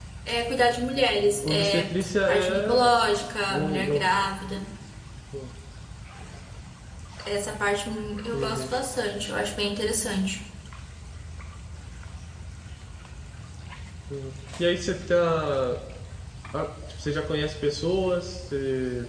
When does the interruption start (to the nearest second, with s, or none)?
1 s